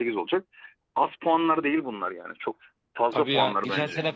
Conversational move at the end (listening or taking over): taking over